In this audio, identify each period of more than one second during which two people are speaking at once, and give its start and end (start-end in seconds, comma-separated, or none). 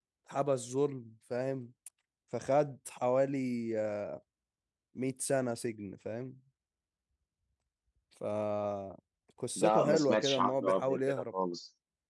9.6-11.2